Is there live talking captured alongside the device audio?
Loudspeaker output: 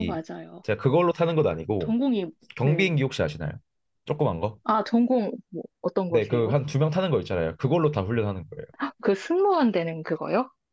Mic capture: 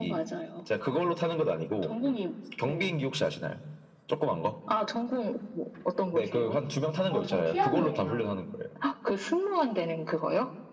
Yes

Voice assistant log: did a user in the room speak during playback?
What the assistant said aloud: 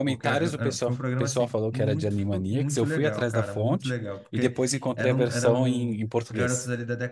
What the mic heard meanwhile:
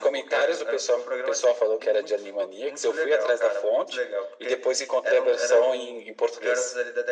No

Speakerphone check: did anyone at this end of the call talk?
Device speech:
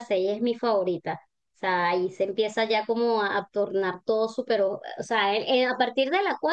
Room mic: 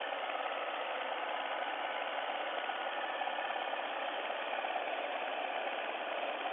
No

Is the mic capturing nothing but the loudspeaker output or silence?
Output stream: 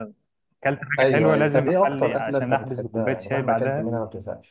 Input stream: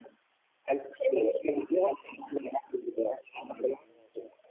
Yes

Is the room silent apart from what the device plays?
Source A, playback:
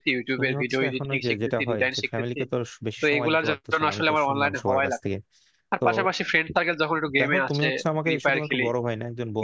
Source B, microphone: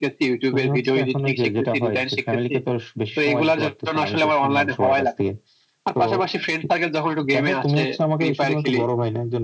Yes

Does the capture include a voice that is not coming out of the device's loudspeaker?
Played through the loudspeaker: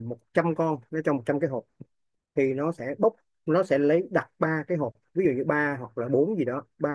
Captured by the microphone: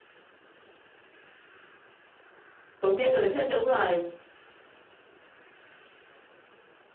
Yes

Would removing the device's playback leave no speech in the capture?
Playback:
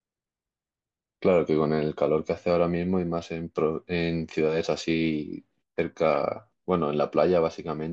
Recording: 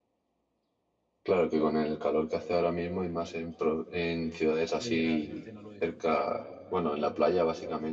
No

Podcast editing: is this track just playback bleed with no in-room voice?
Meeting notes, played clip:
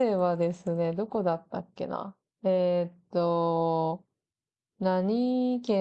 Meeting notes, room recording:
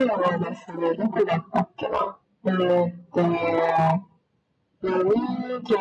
Yes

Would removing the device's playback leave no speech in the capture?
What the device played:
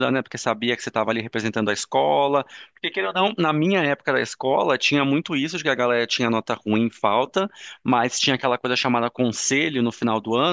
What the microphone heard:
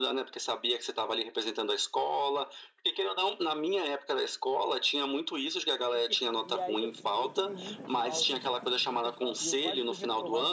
No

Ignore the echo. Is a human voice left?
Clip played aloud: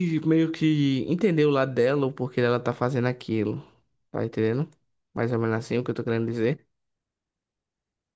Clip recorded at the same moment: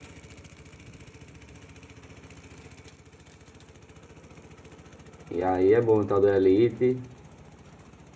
Yes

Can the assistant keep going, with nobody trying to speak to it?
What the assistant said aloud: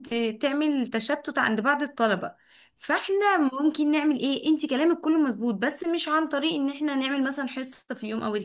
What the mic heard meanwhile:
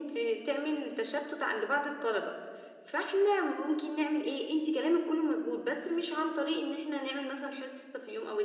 Yes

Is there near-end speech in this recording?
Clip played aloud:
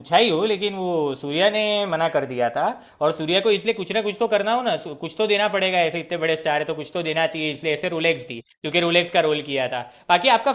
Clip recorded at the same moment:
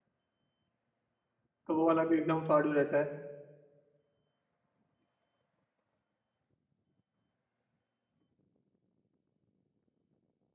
Yes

